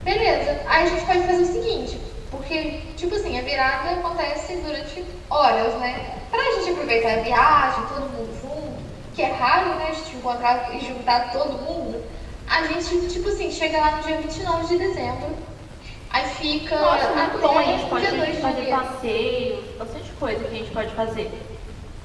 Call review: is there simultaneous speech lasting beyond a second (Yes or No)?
Yes